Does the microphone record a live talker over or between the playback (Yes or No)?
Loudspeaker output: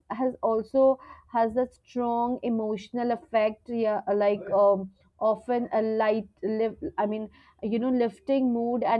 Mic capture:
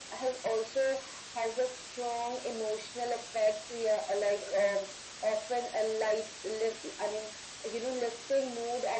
No